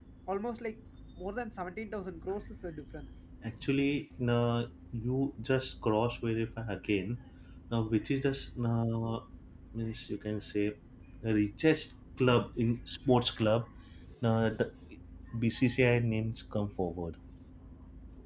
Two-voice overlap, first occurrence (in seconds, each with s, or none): none